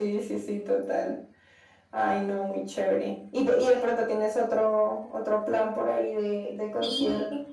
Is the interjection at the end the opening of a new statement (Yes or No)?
Yes